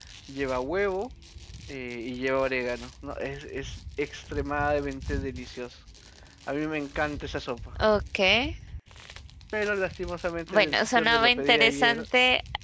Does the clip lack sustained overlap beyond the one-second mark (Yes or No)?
No